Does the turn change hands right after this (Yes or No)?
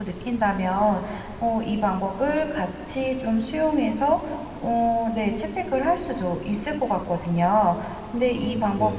No